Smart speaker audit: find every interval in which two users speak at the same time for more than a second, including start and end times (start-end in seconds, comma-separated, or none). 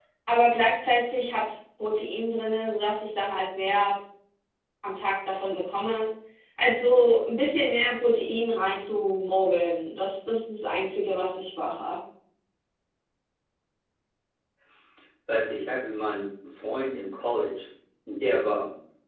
none